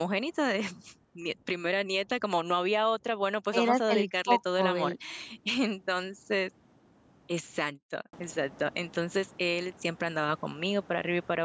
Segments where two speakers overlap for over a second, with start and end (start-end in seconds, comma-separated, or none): 3.5-4.9